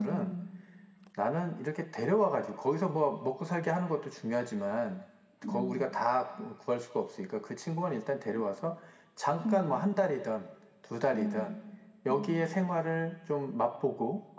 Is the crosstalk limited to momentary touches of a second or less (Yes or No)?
Yes